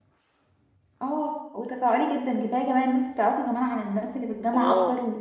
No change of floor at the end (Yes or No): No